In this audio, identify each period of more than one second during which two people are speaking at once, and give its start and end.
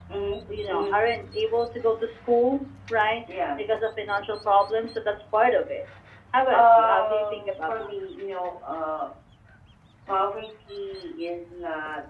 6.5-7.9

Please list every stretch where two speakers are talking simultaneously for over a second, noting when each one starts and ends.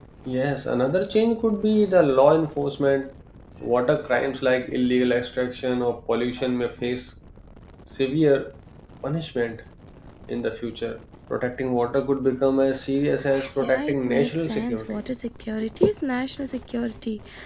13.6-15.0

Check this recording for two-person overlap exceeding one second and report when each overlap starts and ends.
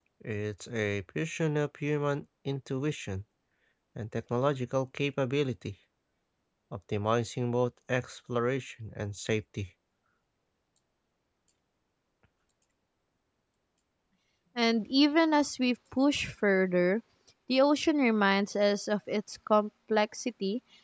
none

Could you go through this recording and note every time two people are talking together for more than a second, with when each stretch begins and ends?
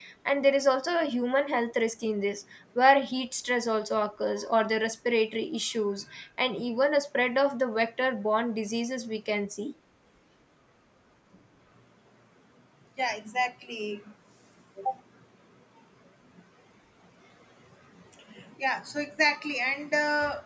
none

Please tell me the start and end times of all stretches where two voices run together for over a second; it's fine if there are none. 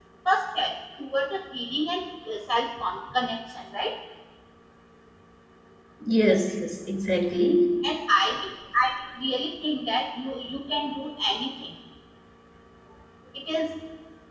none

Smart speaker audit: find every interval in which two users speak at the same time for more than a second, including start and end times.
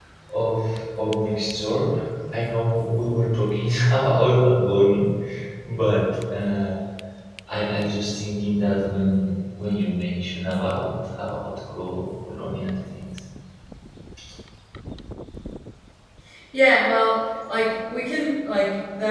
none

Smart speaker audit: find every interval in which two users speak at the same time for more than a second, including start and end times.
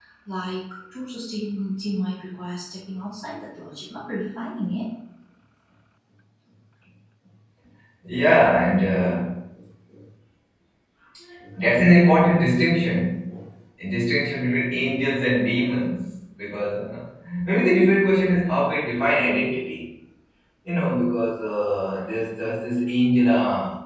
none

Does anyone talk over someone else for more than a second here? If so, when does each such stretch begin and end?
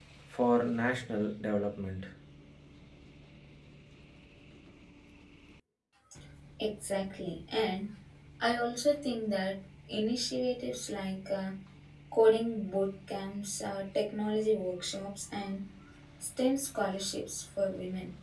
none

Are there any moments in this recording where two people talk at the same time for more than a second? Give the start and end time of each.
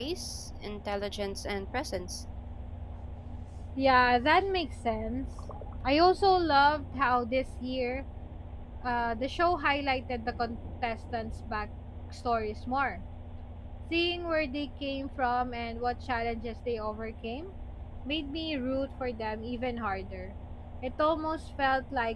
none

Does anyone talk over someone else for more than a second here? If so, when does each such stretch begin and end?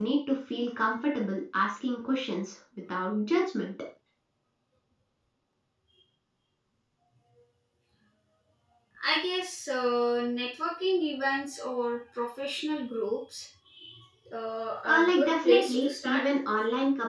14.8-16.2

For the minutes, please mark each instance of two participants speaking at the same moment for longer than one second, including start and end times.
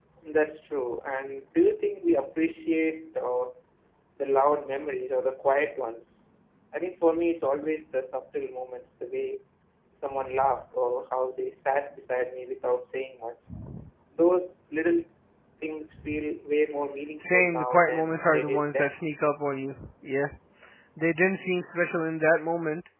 17.3-18.9

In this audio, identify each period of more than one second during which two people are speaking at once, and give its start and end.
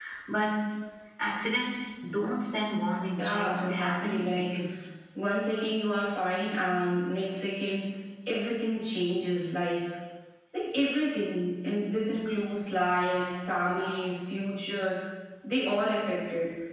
3.2-4.4

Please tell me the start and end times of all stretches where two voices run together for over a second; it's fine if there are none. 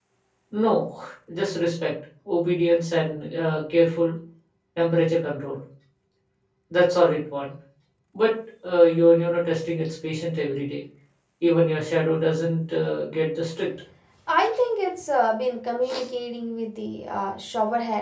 none

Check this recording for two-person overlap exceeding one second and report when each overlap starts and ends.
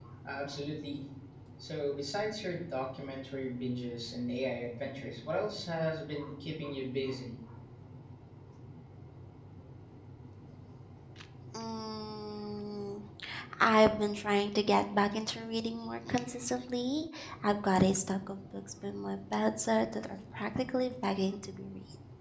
none

